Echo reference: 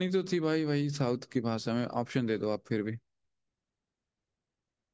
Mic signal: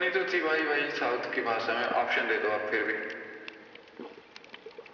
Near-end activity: none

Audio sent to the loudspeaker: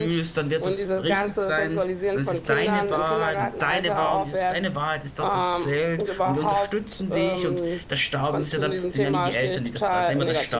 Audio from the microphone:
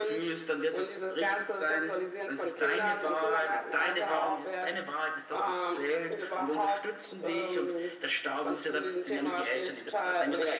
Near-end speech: none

